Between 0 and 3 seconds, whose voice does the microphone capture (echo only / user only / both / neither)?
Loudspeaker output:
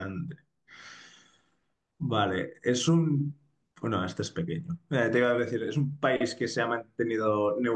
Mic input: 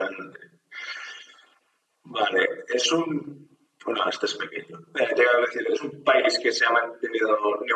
echo only